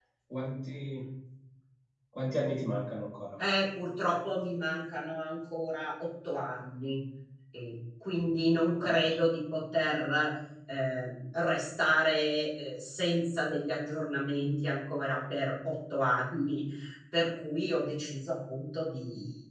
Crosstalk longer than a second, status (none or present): none